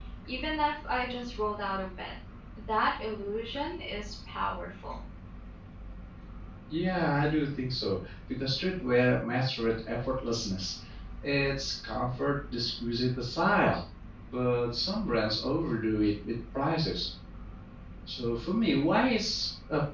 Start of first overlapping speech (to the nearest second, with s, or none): none